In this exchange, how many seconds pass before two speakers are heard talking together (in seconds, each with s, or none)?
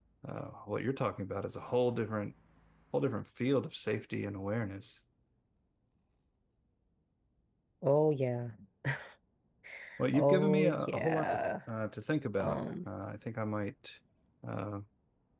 10.1 s